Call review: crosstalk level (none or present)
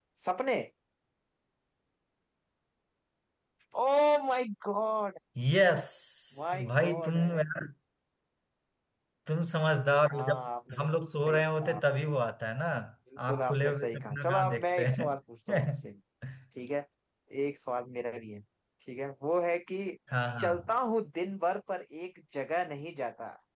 present